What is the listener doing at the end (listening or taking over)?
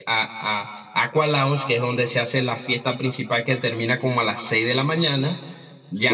listening